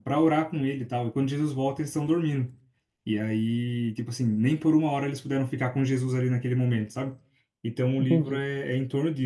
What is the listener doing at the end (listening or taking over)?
listening